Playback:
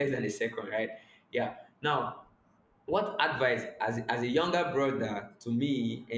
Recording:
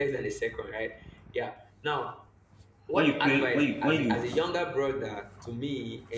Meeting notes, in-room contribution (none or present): present